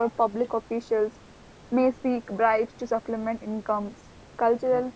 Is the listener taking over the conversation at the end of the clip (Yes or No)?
No